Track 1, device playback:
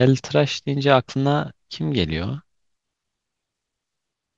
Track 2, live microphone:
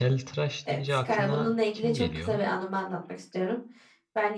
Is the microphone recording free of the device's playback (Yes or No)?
No